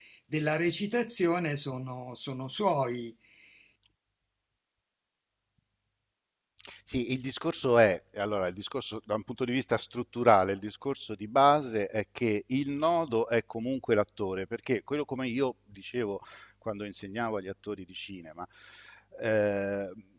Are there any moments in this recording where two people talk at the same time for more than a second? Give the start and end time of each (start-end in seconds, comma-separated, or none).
none